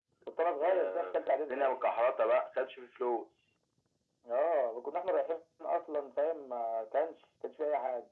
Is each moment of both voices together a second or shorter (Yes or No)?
No